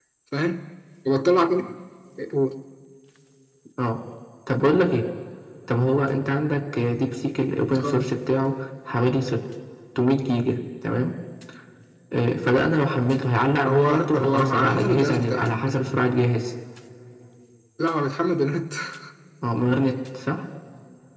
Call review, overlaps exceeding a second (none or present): present